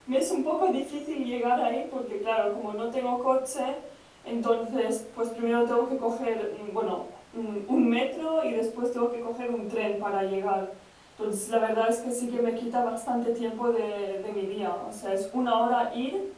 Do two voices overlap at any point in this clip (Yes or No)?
No